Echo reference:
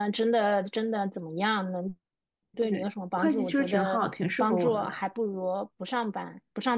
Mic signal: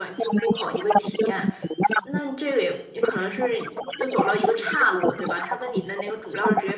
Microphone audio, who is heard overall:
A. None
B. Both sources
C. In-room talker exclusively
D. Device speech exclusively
B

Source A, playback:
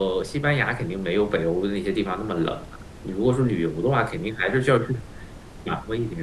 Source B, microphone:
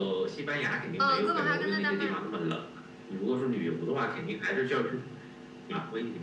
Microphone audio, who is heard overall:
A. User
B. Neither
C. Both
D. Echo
C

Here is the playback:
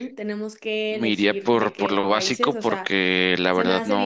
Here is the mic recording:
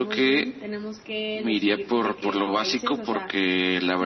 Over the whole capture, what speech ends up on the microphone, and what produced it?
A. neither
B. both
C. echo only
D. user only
C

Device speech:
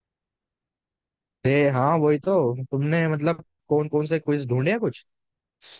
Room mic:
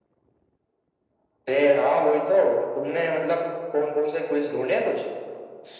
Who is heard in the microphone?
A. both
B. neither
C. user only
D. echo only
D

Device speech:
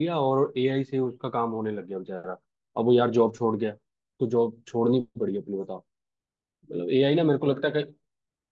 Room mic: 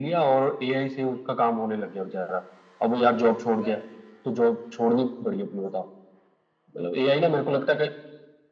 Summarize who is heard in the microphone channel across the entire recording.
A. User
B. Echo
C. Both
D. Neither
C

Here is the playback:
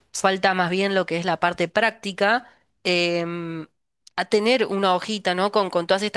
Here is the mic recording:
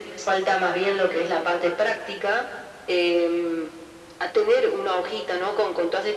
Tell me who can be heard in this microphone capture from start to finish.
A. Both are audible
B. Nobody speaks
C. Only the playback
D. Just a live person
C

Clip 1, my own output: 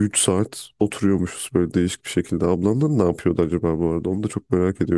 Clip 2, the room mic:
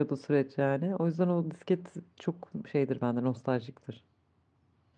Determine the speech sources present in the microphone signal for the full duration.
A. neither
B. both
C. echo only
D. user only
D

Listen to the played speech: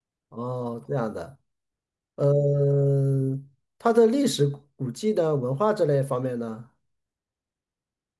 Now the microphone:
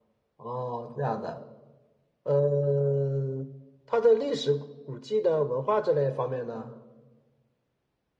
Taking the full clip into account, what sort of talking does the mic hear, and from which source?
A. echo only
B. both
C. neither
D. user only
A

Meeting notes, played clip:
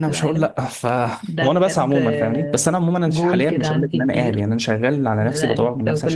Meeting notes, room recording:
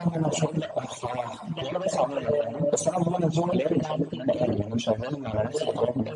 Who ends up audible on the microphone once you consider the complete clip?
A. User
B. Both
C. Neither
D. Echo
D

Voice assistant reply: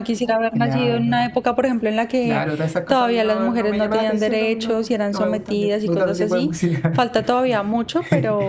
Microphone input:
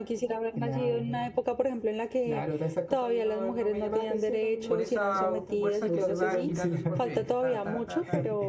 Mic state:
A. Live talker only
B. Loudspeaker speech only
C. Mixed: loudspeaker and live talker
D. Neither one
C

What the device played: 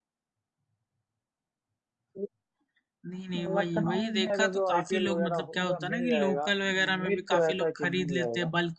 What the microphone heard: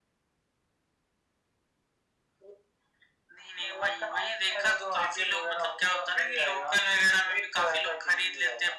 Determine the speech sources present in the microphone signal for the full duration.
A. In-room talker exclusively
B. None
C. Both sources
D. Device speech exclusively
D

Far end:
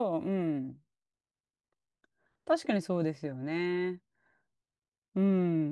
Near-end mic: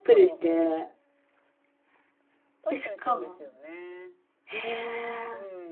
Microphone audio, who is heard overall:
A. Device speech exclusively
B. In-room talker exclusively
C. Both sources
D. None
C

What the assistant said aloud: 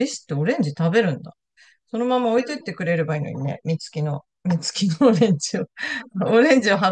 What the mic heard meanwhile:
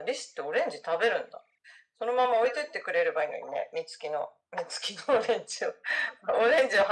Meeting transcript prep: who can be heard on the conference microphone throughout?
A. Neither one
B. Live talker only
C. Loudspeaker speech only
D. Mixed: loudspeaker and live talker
C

